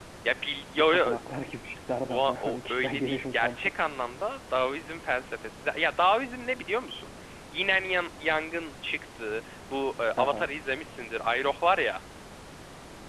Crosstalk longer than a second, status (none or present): present